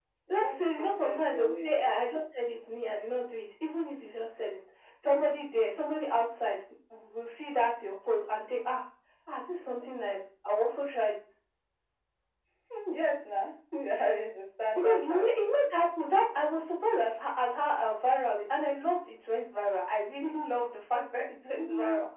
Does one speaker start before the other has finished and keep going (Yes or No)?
Yes